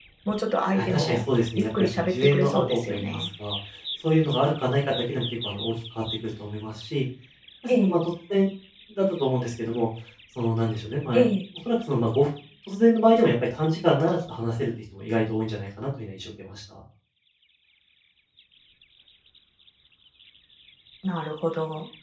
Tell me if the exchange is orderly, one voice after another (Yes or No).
No